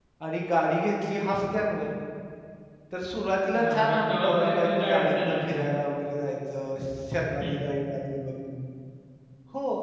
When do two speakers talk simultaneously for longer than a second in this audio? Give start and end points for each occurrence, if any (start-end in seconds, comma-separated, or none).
3.6-5.6